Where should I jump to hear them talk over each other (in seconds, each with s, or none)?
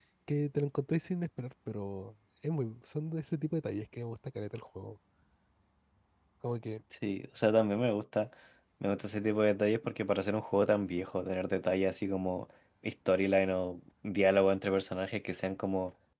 none